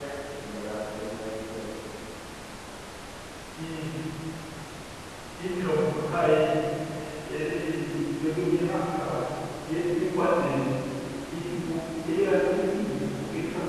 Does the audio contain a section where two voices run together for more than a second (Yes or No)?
No